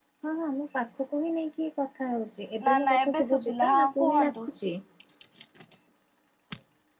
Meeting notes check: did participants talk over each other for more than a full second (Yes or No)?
Yes